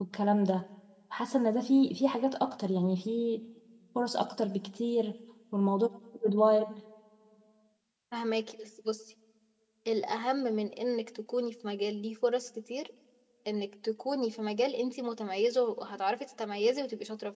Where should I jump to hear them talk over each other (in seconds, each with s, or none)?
none